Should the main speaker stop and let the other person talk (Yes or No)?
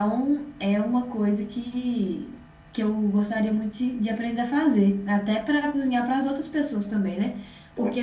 No